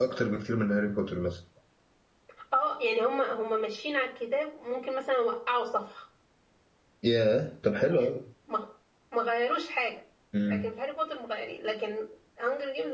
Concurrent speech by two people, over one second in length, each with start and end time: none

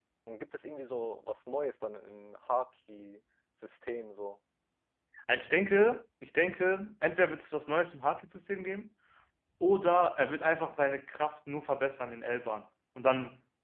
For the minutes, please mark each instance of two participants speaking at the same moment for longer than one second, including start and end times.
none

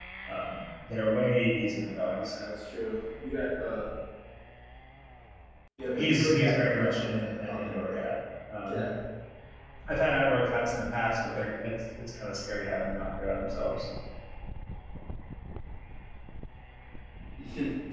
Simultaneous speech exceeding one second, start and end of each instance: 6.0-8.0

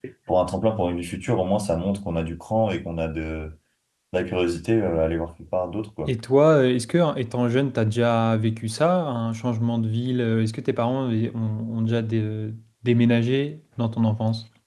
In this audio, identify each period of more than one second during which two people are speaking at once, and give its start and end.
none

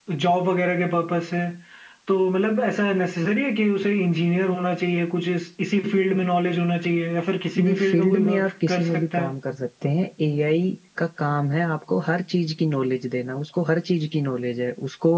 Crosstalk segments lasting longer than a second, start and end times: 7.6-9.3

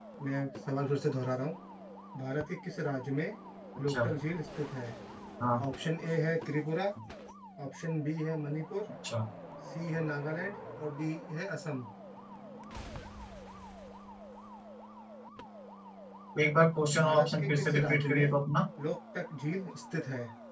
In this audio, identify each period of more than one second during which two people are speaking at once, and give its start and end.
17.0-18.3

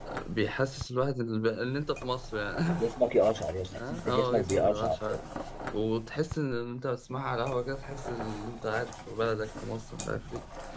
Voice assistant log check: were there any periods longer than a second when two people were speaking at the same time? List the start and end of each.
3.8-5.0

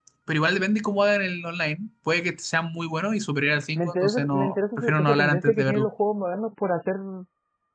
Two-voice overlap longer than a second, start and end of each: 3.8-5.9

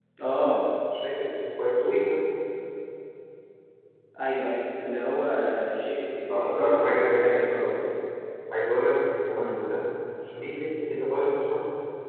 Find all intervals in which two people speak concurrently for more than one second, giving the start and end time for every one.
6.5-7.7

